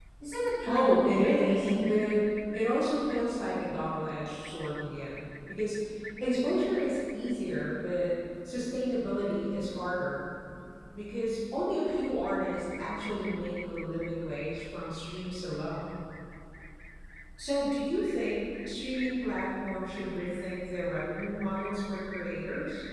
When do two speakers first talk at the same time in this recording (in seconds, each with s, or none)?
0.6 s